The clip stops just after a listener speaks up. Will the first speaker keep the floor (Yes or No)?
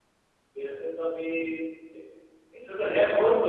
Yes